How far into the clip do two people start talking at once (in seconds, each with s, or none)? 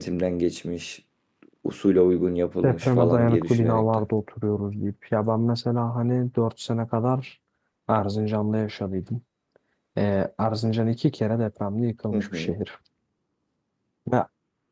2.6 s